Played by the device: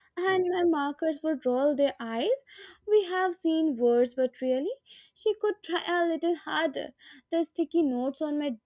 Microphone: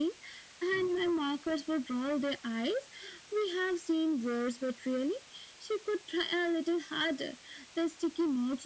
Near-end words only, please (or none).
none